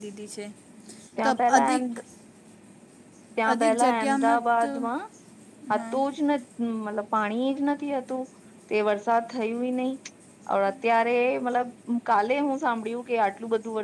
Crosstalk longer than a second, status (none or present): present